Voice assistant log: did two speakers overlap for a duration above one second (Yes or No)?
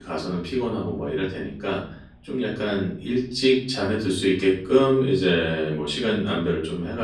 No